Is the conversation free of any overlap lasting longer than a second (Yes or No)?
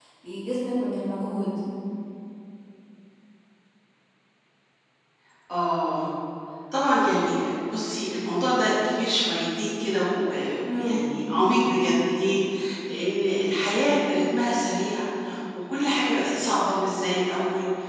Yes